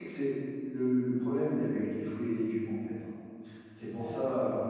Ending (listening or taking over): listening